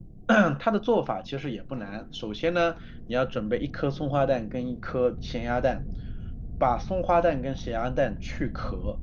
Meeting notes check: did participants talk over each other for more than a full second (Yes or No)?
No